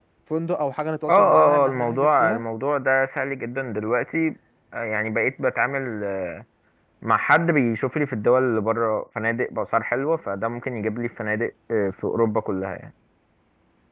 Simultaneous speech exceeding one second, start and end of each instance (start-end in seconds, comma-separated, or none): 1.1-2.4